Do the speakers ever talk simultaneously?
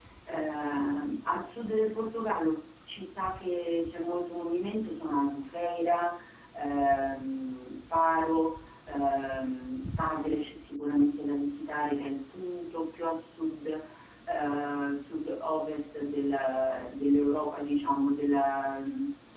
No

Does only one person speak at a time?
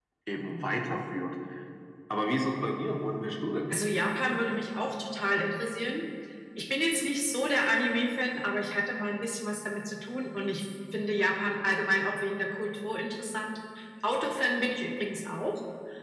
Yes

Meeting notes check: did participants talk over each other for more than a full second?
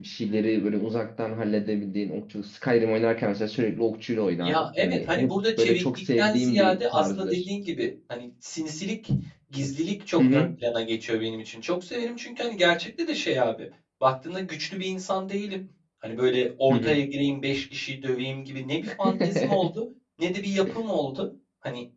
Yes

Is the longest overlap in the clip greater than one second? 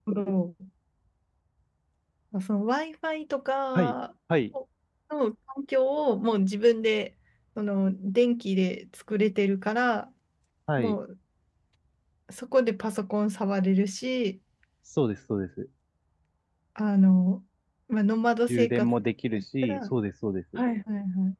No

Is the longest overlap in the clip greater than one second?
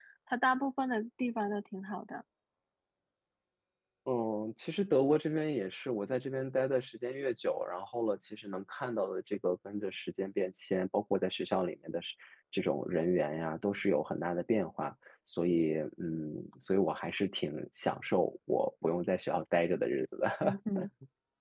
No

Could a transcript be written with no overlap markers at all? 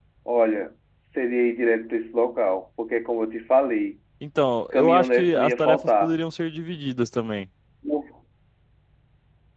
No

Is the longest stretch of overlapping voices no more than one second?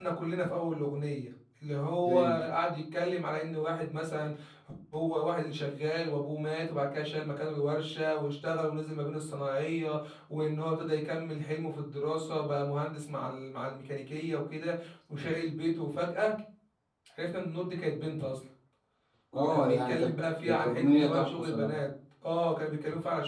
No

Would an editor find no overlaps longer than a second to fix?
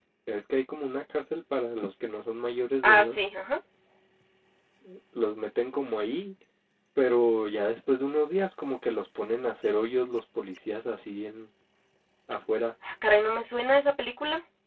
Yes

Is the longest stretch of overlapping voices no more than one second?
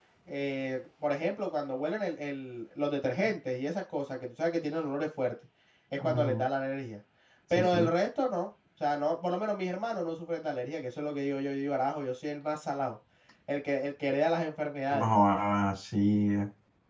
Yes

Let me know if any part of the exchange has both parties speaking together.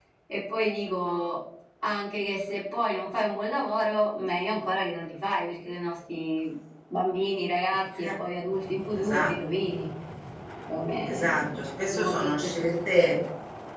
Yes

